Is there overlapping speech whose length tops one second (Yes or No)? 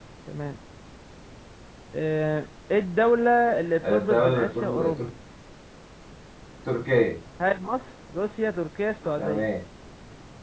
Yes